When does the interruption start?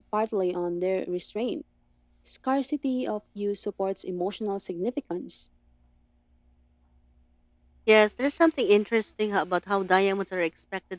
none

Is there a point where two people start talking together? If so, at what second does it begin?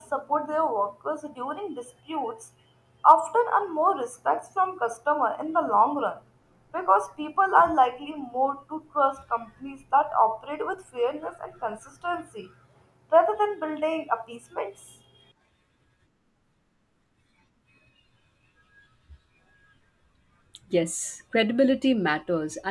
none

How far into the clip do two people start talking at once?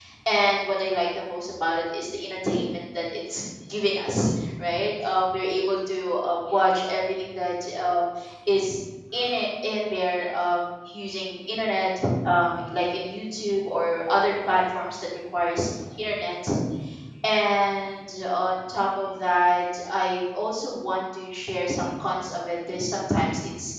none

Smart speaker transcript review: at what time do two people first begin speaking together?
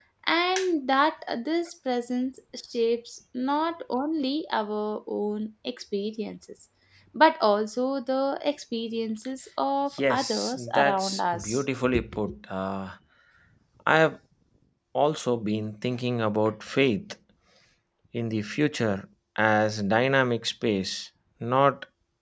10 s

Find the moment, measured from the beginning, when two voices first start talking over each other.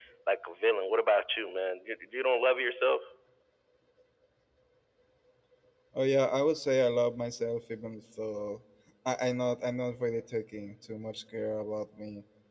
none

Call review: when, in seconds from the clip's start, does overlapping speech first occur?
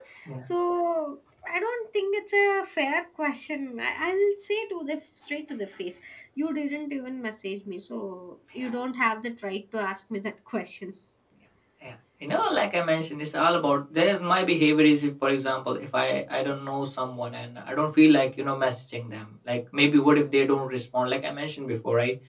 none

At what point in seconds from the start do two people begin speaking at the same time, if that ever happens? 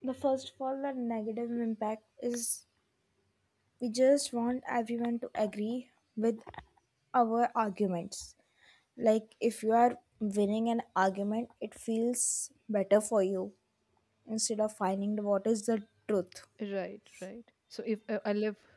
none

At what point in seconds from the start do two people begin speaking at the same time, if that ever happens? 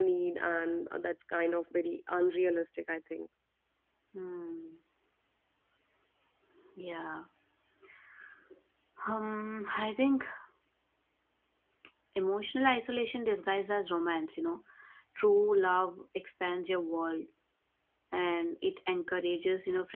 none

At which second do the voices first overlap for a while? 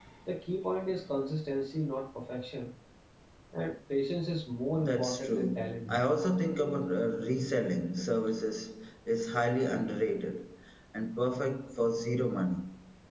5 s

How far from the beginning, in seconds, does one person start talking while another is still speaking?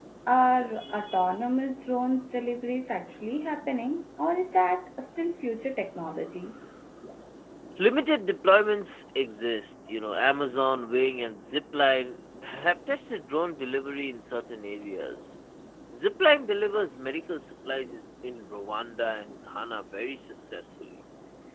none

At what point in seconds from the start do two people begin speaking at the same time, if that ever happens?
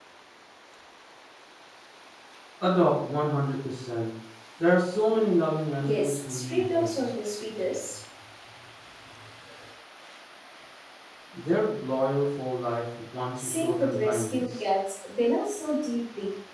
6 s

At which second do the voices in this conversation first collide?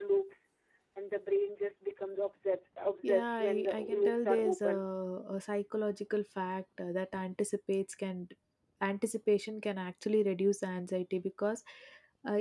3 s

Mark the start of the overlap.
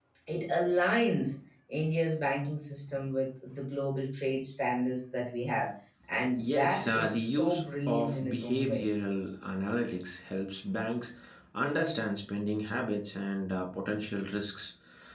6 s

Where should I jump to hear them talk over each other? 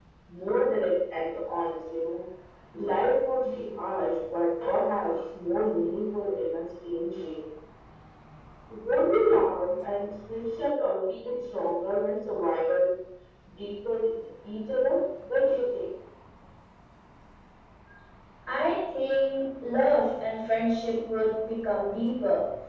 none

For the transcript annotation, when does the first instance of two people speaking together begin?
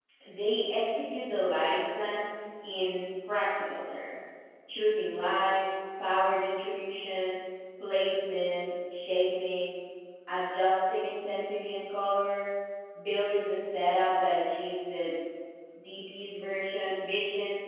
none

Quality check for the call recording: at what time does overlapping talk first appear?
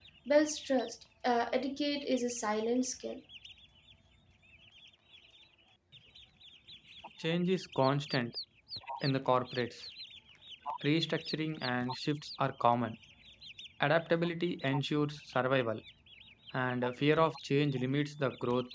none

